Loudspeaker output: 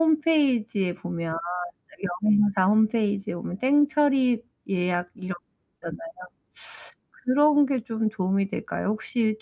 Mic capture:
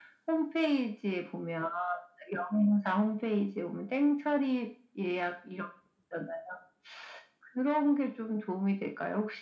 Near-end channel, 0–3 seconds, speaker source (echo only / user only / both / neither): echo only